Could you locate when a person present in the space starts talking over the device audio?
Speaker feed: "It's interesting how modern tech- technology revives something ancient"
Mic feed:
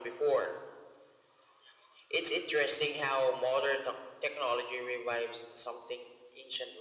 none

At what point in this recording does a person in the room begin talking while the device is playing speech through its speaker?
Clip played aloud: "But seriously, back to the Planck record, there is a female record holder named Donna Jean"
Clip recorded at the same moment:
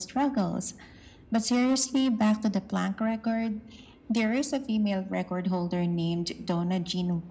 none

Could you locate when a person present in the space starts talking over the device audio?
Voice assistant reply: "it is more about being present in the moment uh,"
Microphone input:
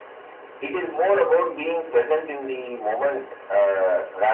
none

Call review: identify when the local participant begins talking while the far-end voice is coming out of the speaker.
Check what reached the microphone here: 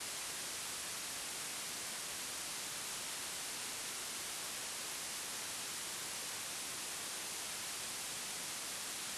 none

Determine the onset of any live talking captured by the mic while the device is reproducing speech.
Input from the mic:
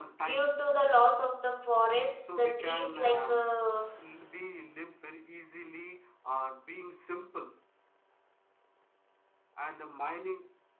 0.3 s

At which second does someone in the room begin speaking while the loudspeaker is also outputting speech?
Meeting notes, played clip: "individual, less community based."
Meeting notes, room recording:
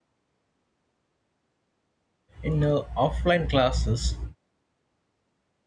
2.4 s

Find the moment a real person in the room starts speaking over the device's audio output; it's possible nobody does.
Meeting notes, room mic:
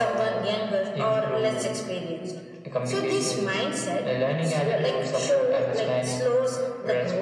none

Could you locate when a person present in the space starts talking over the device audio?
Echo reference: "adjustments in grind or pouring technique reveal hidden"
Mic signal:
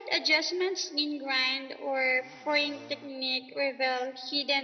none

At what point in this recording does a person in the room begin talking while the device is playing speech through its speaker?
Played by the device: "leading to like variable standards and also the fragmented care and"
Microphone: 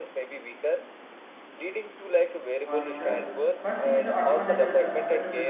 2.6 s

